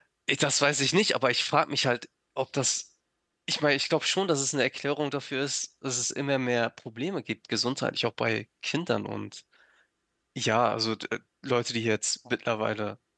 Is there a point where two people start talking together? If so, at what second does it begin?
none

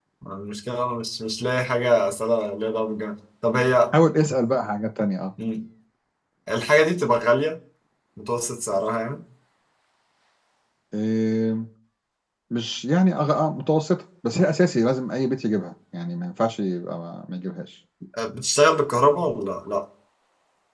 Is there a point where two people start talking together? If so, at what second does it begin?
none

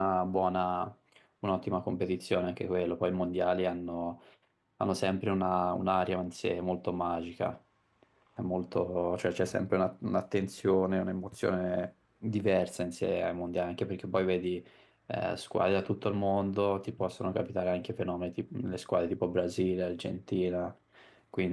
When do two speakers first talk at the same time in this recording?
none

